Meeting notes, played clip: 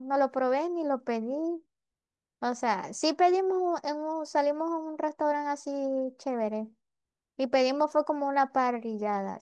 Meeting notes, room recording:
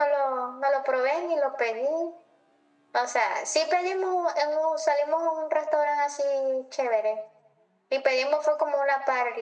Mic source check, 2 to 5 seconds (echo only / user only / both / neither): echo only